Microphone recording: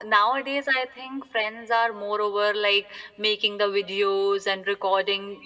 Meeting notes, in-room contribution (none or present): none